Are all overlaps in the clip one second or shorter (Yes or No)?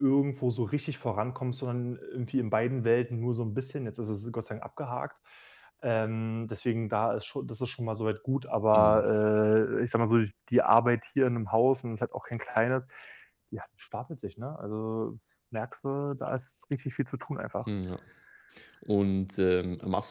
Yes